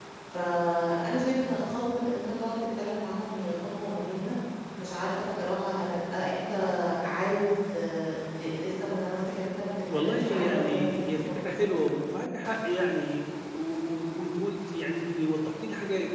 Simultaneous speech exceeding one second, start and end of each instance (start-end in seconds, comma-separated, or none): 9.9-11.8